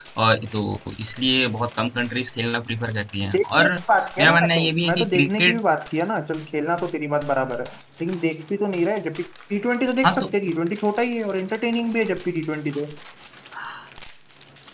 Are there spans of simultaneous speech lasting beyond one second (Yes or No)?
Yes